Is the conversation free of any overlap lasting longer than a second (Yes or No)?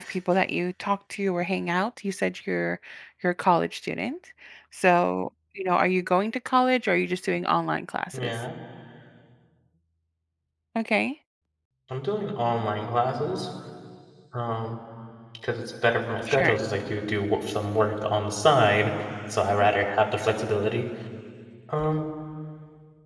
Yes